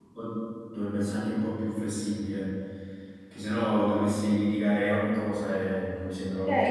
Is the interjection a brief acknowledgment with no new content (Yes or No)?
No